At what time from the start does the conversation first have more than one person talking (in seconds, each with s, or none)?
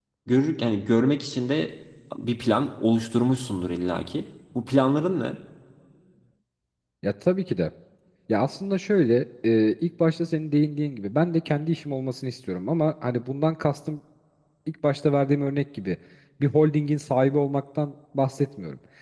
none